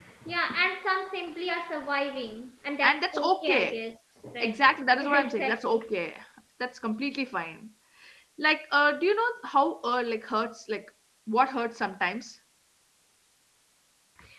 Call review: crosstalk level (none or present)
present